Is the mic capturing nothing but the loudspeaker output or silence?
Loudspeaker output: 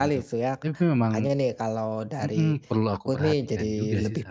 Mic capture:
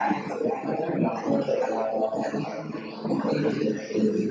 Yes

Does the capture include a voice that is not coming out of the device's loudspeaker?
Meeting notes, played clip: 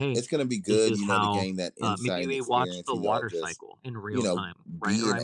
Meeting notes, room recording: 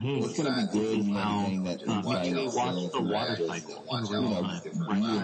Yes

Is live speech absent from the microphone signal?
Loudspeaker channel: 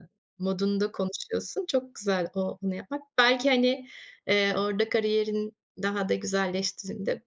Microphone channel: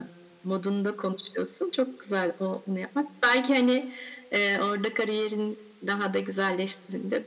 Yes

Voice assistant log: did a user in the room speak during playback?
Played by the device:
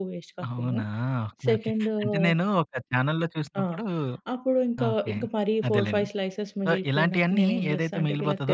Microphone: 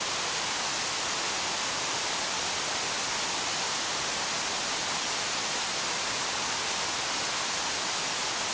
No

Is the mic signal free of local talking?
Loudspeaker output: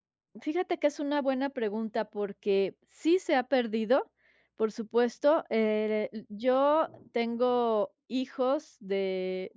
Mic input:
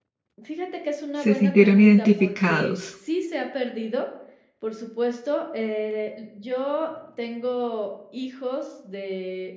No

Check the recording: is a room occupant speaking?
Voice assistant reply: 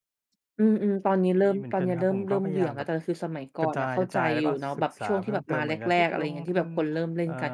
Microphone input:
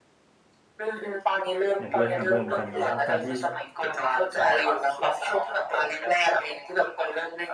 Yes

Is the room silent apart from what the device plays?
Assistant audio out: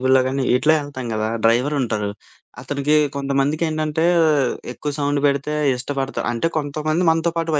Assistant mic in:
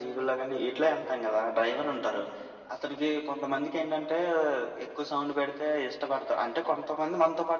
Yes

